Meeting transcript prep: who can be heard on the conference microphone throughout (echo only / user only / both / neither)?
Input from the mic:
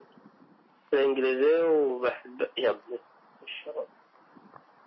echo only